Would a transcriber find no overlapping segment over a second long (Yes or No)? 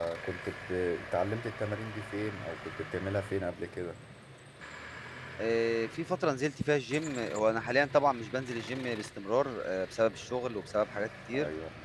Yes